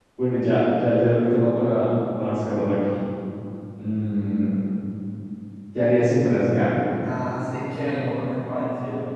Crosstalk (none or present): none